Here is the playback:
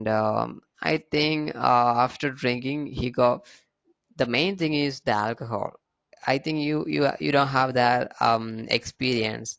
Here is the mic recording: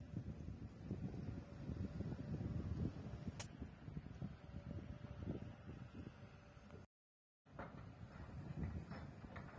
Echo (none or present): none